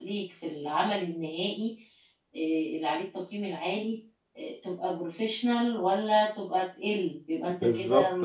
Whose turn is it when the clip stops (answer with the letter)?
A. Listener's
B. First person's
A